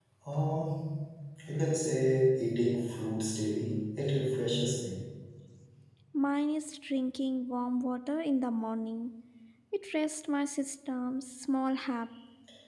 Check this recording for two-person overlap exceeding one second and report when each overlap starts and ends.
none

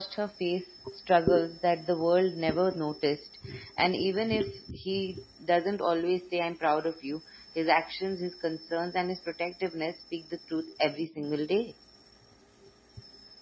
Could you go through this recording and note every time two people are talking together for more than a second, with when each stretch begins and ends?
none

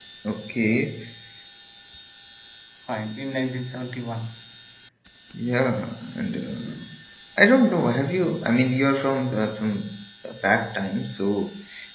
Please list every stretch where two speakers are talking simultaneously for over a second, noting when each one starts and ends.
none

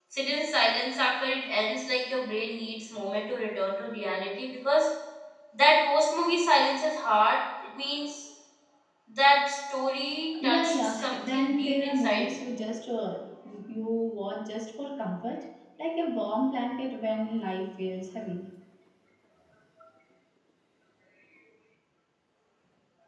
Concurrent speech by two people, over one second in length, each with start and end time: 10.4-12.4

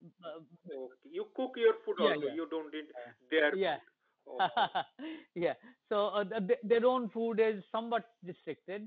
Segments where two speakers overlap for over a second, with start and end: none

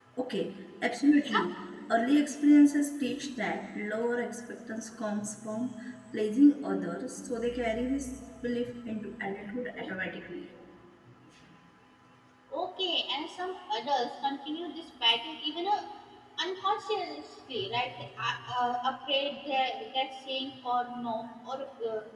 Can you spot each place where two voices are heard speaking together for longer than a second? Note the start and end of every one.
none

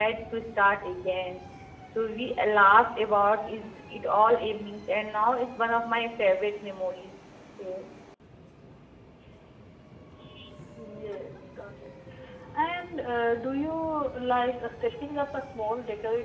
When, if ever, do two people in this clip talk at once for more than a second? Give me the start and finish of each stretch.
none

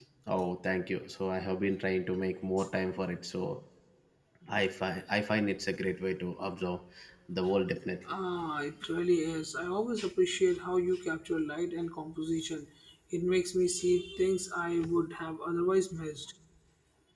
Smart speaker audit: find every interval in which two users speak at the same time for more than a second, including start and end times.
none

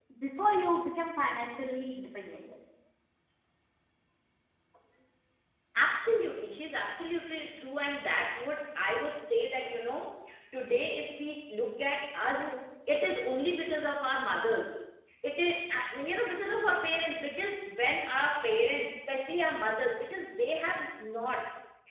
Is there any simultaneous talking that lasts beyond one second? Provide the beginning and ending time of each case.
none

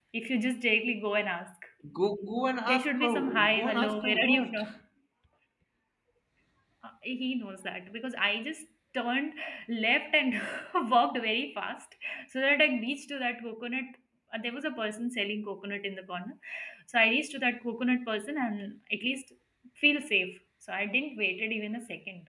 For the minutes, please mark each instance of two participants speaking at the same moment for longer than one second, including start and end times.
2.7-4.6

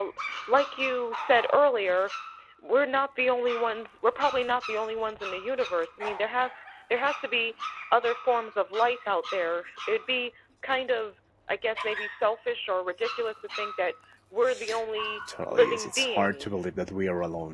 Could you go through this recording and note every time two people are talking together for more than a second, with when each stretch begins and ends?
15.5-16.7

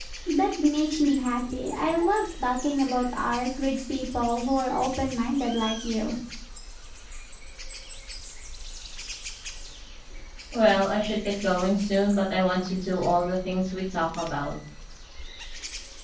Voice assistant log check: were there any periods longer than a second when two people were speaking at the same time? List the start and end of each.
none

